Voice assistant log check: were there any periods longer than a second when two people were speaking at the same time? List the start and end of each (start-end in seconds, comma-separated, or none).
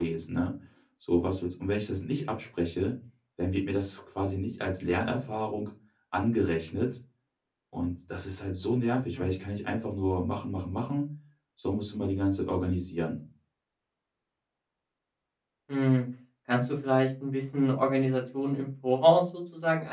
none